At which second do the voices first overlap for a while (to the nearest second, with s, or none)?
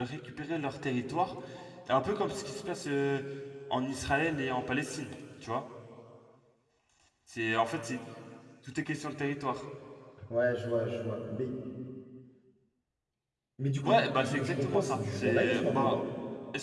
14 s